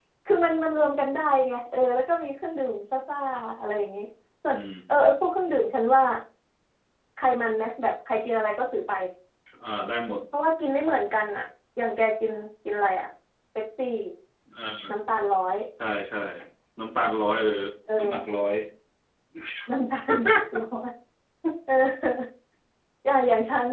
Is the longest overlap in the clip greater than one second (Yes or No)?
No